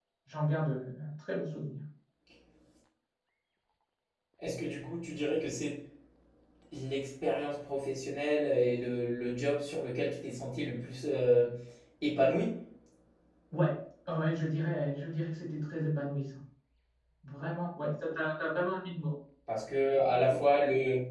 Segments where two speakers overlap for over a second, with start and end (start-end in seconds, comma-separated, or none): none